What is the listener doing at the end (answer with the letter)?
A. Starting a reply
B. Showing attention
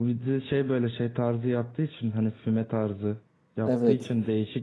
B